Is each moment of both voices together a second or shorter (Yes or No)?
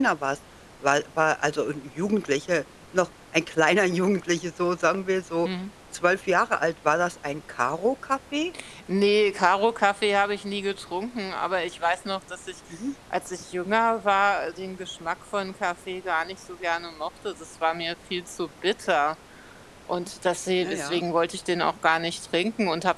Yes